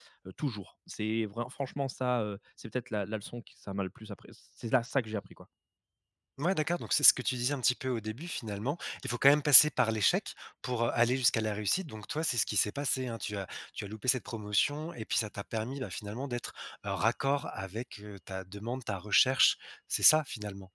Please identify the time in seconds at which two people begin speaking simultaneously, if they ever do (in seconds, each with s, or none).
none